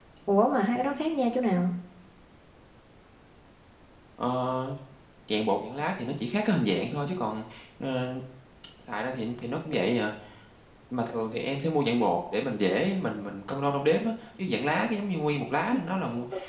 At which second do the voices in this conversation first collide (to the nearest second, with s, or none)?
none